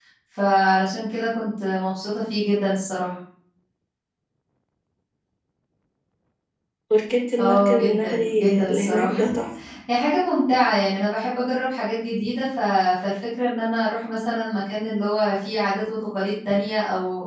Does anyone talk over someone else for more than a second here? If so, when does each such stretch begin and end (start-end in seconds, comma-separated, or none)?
7.4-9.3